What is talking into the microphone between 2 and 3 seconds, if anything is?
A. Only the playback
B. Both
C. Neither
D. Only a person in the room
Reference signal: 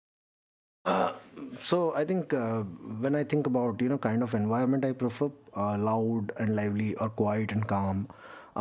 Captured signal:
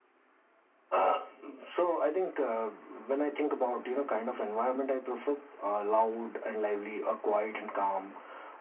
A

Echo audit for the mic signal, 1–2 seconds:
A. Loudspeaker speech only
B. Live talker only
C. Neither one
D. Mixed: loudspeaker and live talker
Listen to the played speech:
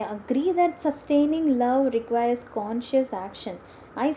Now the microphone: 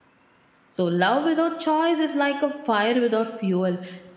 B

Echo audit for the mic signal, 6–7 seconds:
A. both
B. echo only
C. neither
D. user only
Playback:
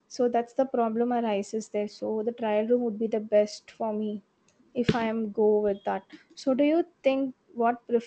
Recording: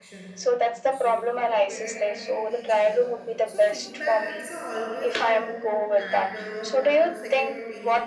A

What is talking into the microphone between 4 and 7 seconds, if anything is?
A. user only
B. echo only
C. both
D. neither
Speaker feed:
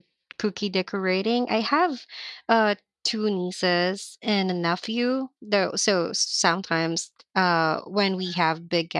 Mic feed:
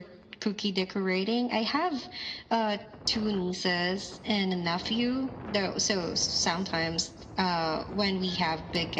B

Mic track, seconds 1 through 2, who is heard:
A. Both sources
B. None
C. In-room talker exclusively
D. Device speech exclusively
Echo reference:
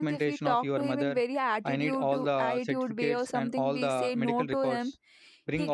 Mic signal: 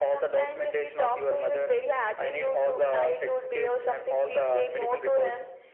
D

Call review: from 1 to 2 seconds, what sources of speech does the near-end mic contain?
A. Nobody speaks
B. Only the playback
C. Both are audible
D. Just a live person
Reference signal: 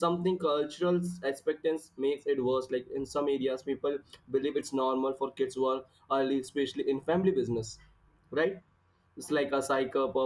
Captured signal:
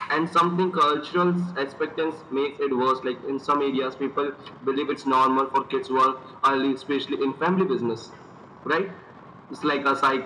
B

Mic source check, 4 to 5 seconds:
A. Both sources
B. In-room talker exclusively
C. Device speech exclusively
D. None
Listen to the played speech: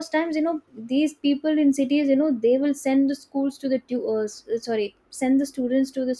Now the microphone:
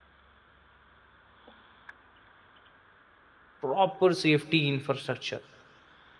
B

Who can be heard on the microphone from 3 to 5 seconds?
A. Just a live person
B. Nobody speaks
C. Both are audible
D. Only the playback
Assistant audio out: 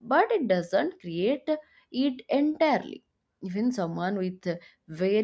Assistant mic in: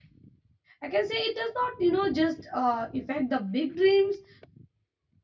A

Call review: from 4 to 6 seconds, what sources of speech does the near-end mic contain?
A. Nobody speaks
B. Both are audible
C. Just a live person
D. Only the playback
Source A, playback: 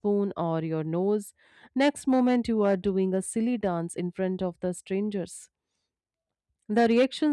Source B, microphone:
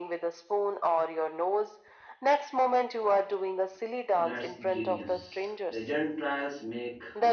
B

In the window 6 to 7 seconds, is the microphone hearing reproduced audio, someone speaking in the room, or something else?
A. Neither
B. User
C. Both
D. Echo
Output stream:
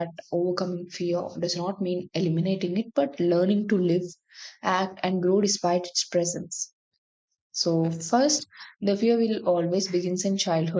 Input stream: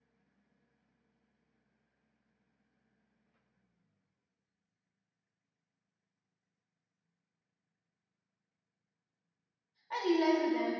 A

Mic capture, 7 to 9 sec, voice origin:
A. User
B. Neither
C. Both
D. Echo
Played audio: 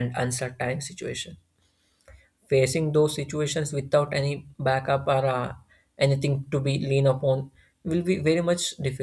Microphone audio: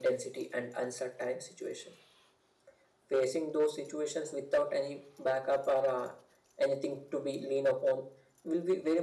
D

